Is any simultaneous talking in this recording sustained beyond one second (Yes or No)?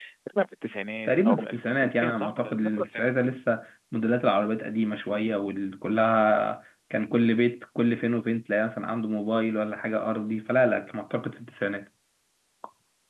Yes